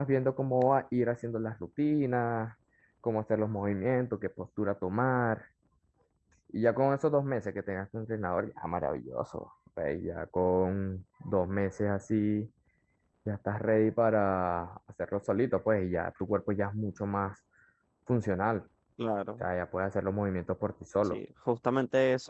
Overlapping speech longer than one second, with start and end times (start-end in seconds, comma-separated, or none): none